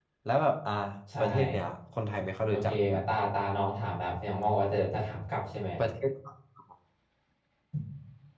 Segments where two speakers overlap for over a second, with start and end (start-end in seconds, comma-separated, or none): none